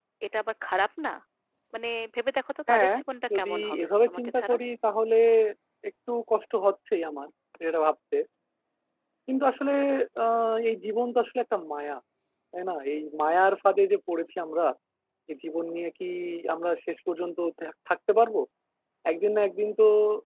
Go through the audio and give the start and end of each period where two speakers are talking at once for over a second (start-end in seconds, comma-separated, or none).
3.4-4.5